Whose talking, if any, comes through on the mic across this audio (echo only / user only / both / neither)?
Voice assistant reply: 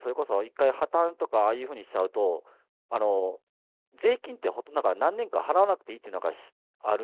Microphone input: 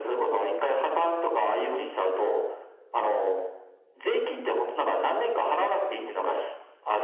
echo only